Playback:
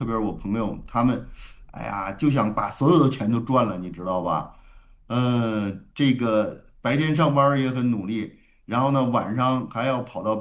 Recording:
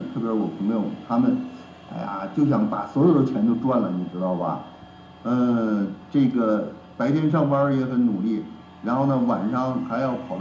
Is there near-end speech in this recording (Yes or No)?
No